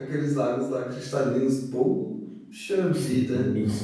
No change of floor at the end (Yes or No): No